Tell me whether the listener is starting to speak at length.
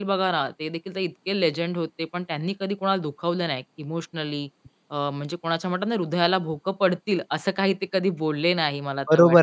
Yes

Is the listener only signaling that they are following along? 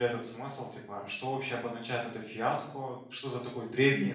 Yes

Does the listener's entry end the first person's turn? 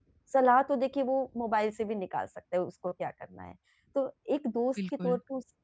No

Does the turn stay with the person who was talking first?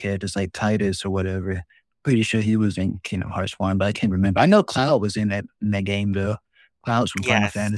No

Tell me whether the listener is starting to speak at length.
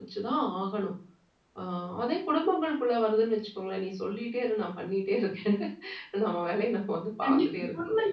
Yes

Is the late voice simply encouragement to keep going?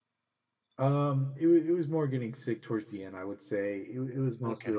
Yes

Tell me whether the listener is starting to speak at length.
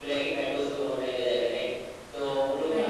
No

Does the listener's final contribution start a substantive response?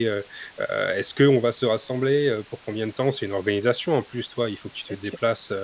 No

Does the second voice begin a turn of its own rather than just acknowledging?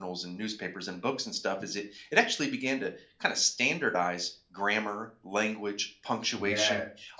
No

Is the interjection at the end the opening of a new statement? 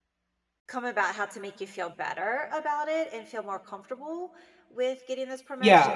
Yes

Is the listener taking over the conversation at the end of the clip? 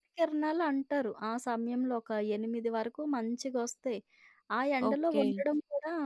No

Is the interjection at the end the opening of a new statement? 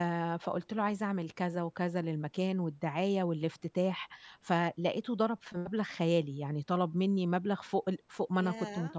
Yes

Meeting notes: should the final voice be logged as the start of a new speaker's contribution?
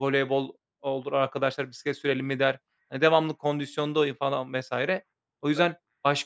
No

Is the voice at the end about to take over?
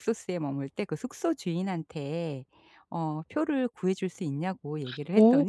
Yes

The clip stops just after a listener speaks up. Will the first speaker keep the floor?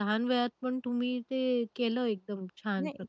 No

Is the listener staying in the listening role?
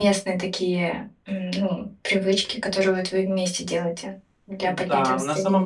No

